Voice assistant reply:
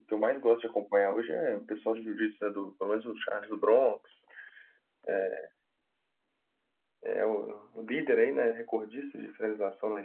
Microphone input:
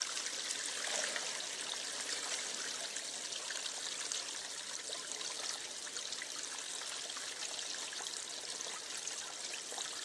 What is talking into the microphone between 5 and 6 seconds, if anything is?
neither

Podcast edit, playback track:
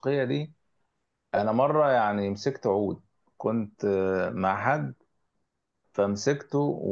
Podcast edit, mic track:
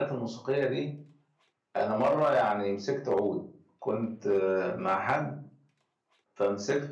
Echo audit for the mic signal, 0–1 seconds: echo only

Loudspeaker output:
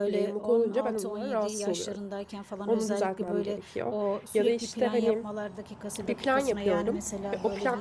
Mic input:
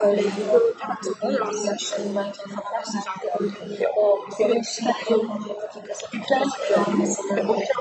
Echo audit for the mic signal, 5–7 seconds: echo only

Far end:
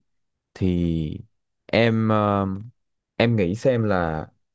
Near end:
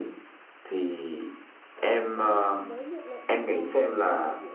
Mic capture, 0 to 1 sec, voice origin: echo only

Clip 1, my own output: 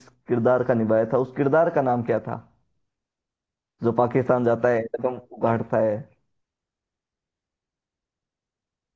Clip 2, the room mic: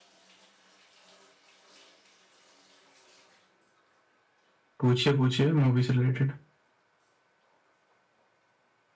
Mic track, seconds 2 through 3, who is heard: neither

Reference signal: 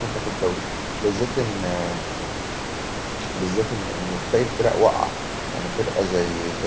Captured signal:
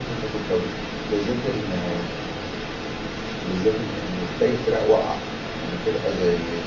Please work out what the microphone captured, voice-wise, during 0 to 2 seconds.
echo only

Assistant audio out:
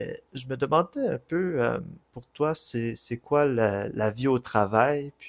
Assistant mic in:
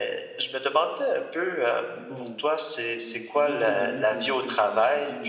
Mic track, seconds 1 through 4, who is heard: both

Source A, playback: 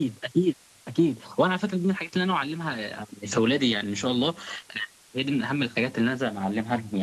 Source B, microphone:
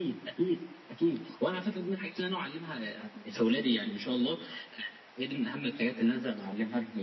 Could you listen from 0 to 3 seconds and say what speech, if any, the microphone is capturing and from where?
echo only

